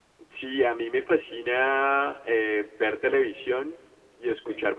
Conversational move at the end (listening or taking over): listening